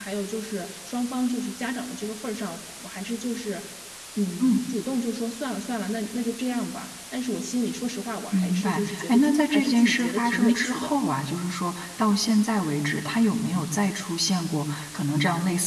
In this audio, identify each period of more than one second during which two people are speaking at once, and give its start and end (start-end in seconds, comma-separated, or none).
8.3-10.9